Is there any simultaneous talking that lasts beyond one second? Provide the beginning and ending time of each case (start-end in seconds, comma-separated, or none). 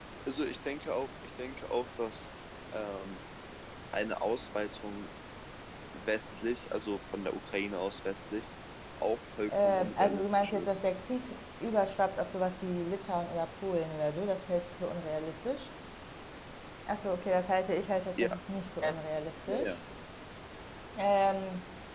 9.5-10.8